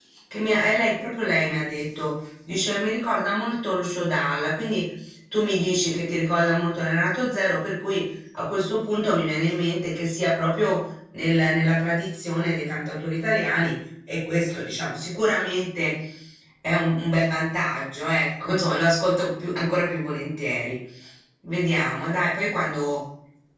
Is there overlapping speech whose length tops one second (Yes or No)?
No